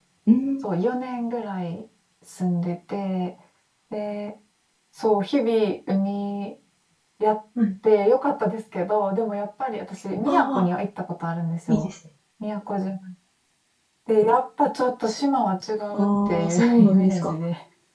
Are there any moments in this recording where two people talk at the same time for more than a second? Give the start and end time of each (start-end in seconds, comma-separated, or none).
15.9-17.3